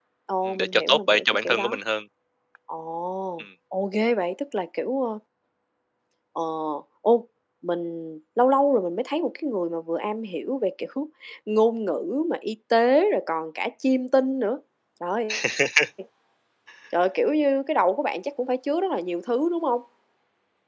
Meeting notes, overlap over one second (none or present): present